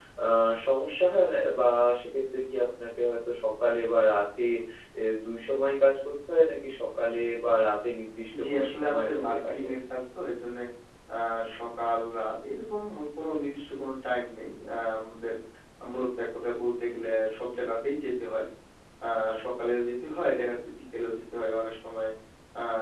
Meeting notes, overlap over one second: present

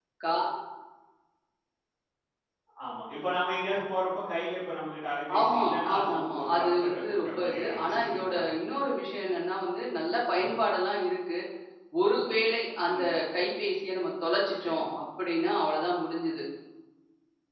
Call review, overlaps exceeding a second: present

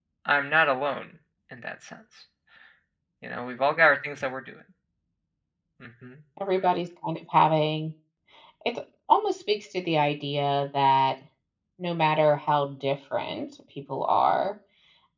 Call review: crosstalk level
none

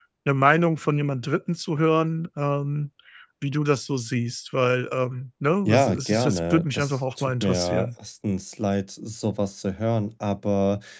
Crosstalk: present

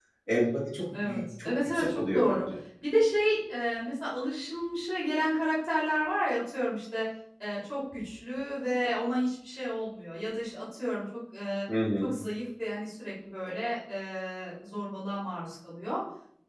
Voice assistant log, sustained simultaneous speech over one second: present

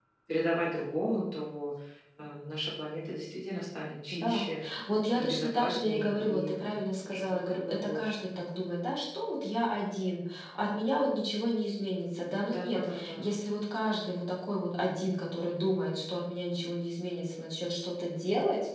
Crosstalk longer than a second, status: present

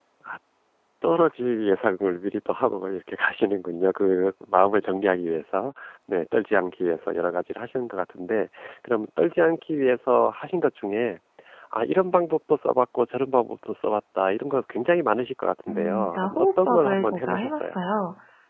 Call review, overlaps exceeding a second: present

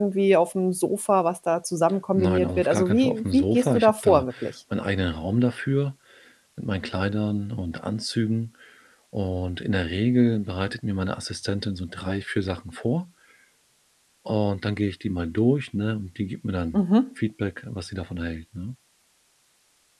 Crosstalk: present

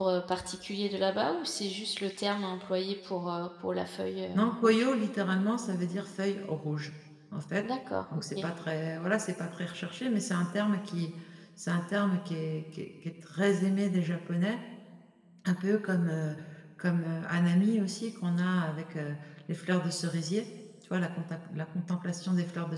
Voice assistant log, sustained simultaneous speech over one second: none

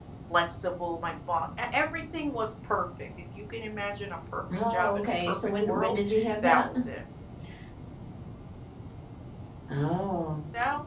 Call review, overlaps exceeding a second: present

